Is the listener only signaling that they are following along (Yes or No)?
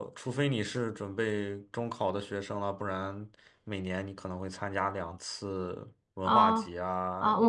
No